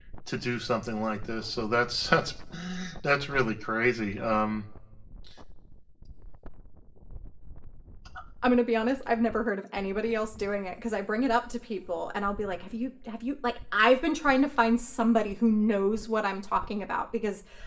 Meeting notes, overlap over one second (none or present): none